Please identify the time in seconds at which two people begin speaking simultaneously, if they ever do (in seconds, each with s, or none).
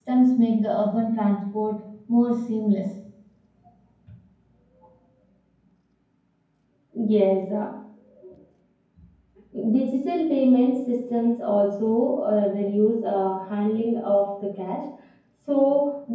none